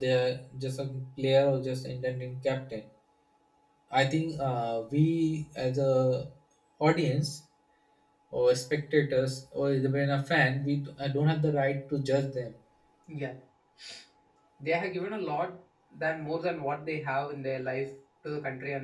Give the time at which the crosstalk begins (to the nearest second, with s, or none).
none